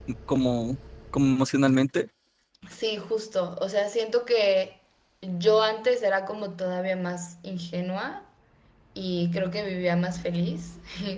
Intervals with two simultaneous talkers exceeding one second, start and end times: none

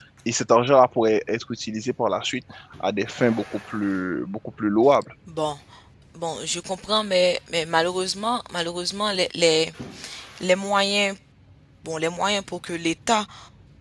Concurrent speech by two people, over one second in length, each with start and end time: none

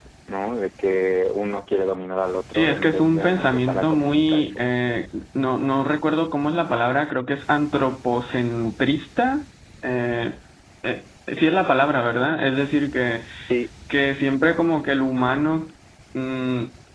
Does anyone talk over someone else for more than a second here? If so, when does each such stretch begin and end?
2.5-4.6

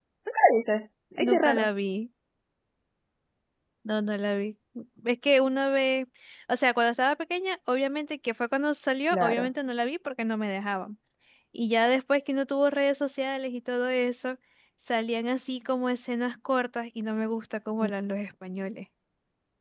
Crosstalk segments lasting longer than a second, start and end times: none

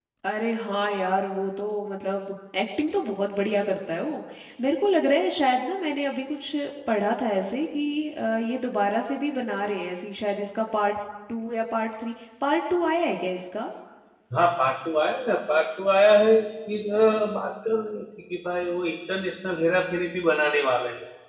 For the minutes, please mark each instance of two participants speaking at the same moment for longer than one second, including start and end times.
none

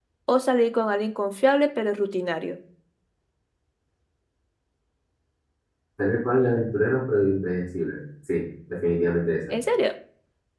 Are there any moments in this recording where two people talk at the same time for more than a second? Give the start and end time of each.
none

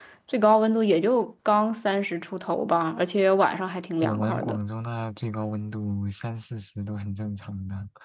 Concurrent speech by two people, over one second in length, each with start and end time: none

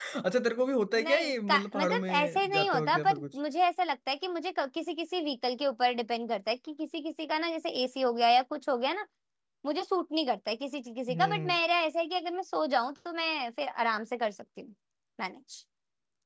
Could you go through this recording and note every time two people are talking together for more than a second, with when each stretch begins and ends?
0.9-3.2

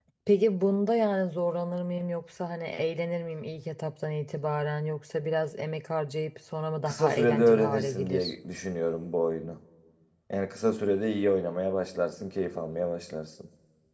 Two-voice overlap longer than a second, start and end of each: 6.8-8.3

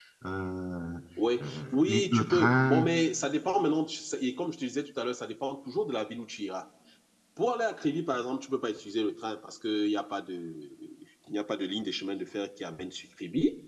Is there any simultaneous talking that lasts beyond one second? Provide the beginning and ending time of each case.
1.4-2.9

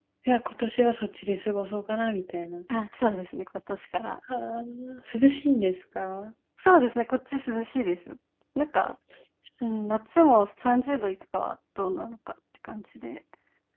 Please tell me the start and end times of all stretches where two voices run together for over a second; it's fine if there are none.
none

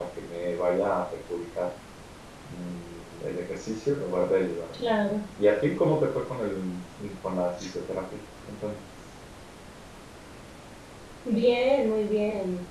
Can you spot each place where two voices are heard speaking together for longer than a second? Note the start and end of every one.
none

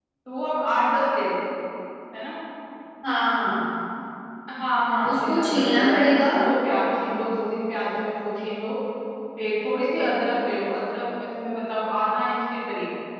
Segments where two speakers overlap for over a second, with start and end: 5.1-6.3

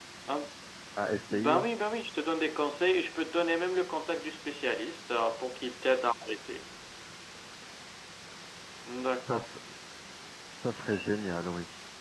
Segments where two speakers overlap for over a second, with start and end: none

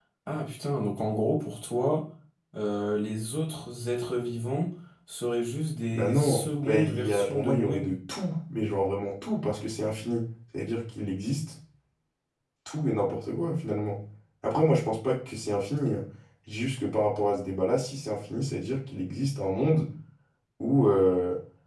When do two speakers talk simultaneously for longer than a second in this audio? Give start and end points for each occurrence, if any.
5.9-7.9

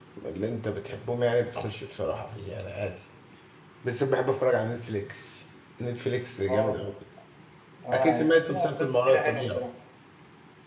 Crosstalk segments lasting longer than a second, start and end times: 7.9-9.6

